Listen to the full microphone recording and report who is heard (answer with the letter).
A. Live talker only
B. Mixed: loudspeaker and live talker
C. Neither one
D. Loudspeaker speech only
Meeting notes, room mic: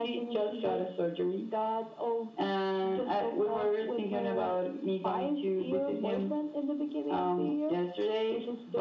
D